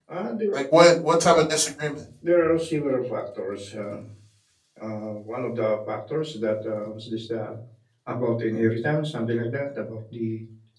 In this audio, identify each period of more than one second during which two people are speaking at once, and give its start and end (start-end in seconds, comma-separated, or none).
none